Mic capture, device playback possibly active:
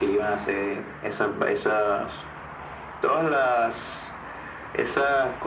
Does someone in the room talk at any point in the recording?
No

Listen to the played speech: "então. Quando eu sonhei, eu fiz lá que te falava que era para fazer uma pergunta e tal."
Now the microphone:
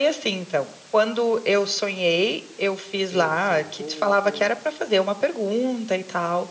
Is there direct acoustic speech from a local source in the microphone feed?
Yes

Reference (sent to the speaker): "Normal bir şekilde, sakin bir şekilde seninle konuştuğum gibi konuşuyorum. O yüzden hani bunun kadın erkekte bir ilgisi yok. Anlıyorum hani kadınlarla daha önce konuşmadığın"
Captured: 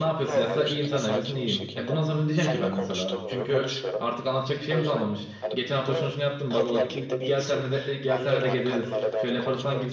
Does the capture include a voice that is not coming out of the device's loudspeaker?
Yes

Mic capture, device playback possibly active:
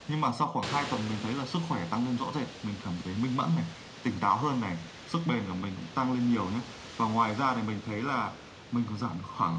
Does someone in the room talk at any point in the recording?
No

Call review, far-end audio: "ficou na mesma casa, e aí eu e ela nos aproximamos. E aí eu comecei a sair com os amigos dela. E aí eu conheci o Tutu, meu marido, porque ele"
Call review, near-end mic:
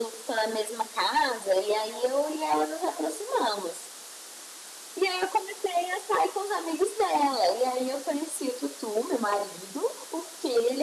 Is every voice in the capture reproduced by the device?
Yes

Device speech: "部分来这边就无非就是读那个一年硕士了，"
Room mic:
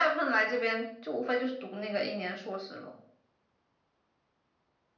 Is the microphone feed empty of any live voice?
Yes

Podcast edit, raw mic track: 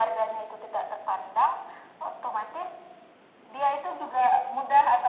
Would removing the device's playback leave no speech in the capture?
Yes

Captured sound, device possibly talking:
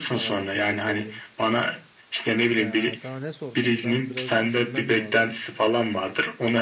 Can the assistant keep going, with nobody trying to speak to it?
No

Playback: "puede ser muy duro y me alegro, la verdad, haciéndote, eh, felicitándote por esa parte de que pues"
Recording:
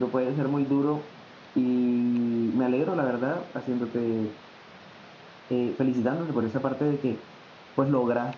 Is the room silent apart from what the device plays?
Yes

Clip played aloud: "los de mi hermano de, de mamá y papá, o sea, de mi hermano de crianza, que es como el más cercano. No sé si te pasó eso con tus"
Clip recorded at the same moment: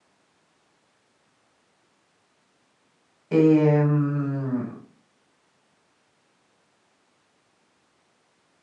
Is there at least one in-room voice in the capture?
Yes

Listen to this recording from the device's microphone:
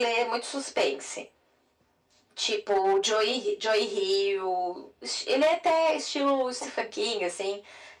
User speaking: No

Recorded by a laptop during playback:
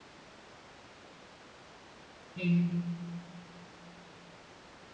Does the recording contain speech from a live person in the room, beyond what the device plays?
Yes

